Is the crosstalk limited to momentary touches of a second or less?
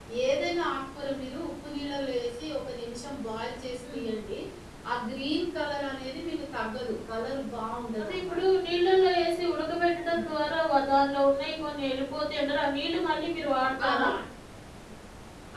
Yes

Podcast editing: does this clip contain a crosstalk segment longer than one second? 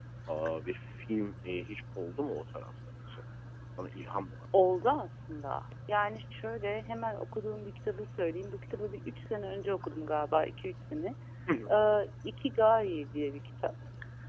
No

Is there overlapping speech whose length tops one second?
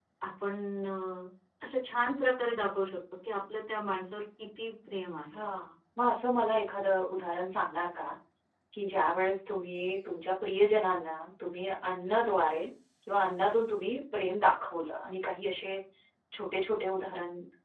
No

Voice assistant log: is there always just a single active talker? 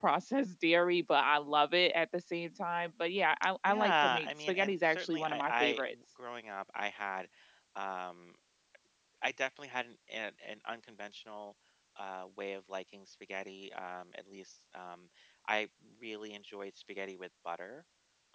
No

